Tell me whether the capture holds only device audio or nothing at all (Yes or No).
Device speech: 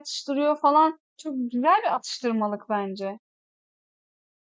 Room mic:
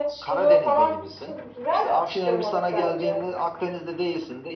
No